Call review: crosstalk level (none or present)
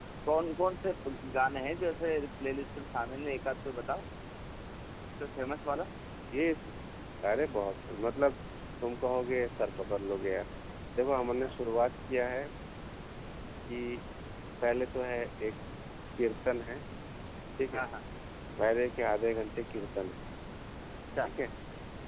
none